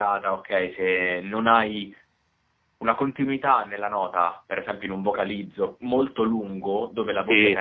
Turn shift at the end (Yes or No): No